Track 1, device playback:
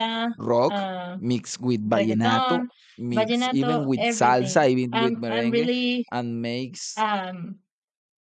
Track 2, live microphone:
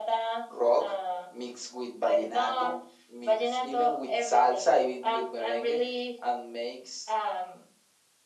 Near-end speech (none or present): none